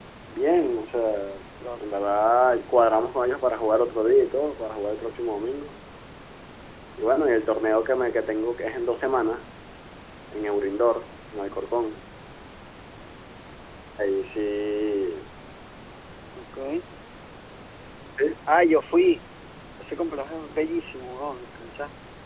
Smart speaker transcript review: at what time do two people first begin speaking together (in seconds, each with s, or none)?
none